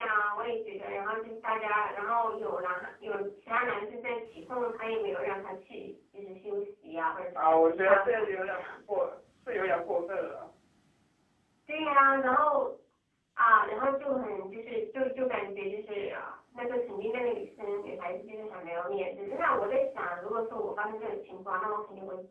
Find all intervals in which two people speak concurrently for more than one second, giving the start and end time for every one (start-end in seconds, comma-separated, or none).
7.3-8.7